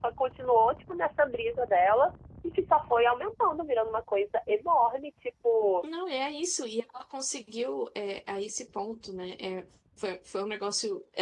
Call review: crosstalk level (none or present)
none